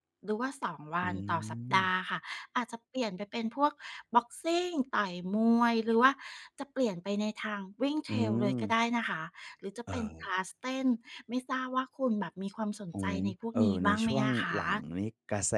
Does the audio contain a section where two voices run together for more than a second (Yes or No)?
Yes